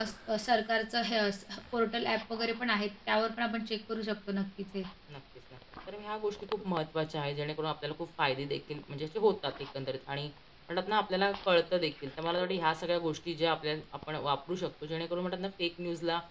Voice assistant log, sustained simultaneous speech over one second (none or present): none